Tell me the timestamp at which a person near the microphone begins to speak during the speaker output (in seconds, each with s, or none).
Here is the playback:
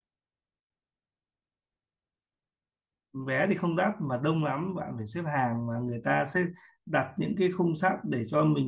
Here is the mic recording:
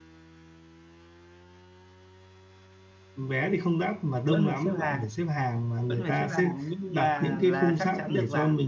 4.2 s